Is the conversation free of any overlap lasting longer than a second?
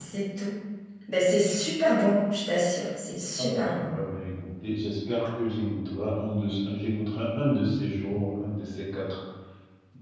Yes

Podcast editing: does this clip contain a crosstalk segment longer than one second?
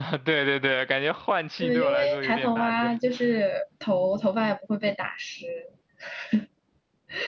Yes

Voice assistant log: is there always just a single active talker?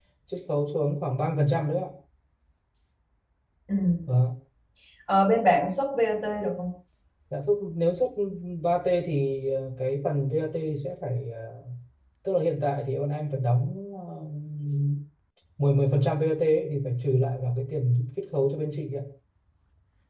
Yes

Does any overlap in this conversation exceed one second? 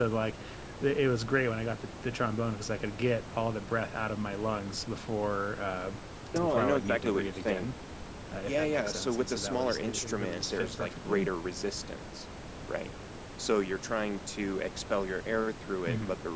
Yes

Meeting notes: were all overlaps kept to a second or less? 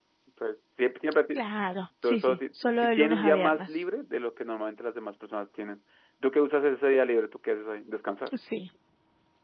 No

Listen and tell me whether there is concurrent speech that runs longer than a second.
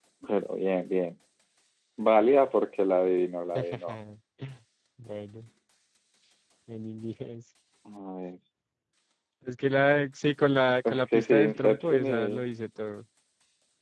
Yes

